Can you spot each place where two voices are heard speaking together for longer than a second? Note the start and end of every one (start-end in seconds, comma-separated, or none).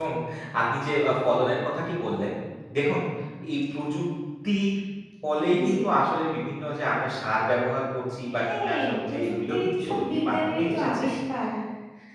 8.4-11.0